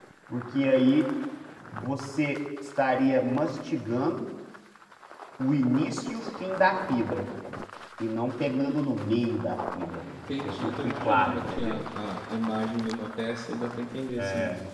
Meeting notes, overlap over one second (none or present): present